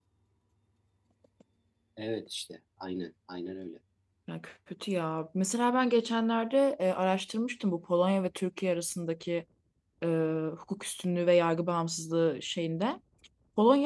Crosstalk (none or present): none